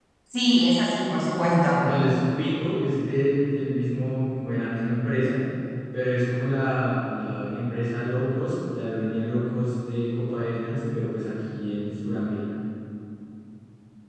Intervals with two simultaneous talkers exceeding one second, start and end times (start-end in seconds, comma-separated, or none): none